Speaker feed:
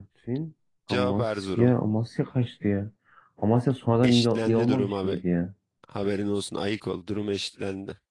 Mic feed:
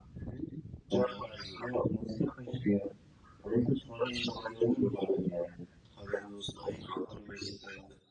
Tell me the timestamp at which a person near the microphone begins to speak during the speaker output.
none

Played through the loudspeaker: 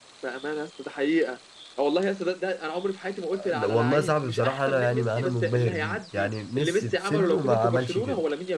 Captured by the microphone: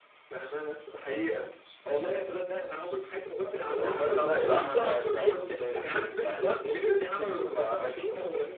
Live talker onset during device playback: 3.8 s

